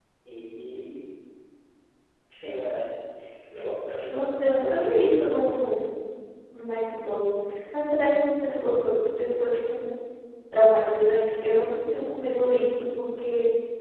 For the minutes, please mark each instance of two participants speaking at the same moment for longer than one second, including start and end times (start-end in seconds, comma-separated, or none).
4.1-5.8